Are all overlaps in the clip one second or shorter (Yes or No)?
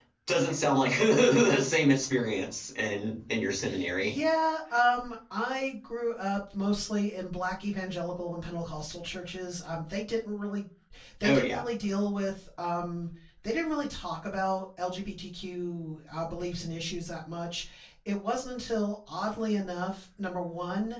Yes